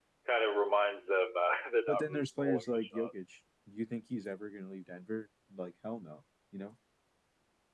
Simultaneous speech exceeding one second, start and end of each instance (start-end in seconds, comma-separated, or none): 1.9-3.1